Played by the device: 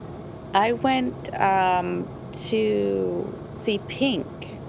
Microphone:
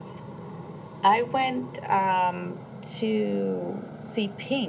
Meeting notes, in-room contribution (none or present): none